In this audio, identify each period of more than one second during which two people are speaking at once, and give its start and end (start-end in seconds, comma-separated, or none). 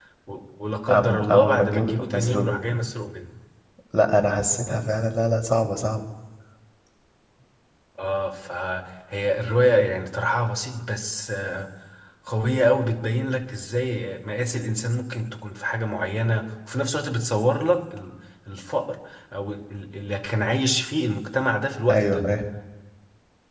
0.9-2.5